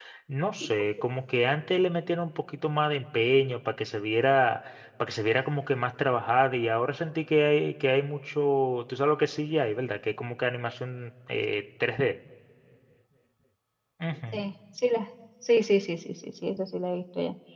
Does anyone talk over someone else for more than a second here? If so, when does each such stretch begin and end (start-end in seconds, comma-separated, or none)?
none